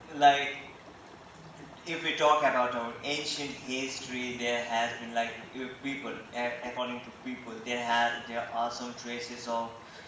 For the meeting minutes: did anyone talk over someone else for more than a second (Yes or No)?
No